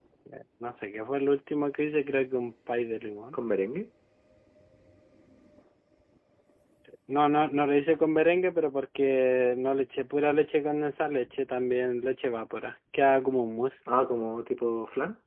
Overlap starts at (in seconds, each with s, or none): none